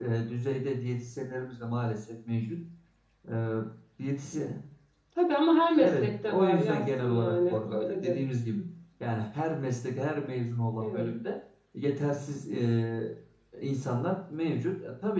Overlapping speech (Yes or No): Yes